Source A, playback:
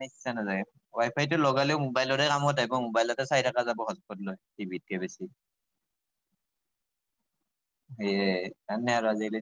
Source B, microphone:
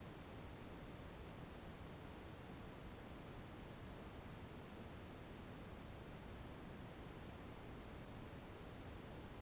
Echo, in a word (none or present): none